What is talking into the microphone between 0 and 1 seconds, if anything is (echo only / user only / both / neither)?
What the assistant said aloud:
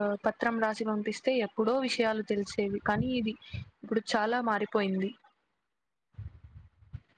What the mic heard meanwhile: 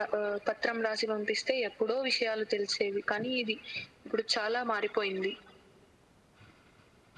echo only